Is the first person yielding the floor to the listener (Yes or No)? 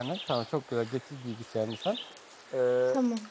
No